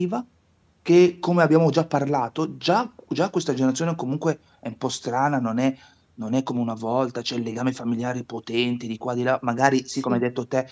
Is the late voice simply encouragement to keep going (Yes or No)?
Yes